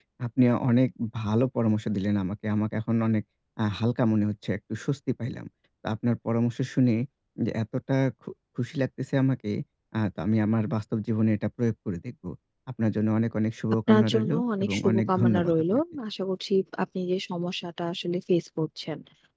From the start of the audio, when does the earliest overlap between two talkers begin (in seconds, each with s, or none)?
13.9 s